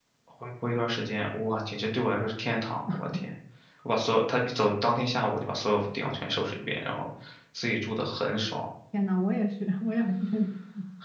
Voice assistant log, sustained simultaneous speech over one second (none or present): none